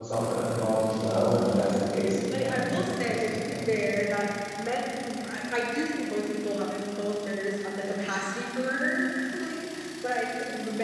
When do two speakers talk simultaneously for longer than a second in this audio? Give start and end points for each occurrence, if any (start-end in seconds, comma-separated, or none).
2.3-3.8